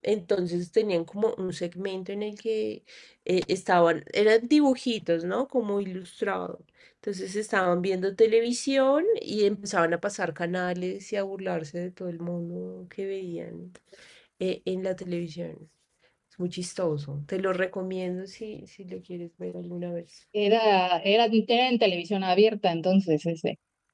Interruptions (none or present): none